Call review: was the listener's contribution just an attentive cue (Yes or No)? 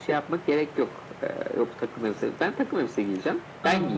No